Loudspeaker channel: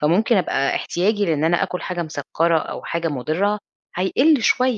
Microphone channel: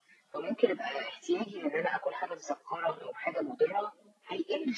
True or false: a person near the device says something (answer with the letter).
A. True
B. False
B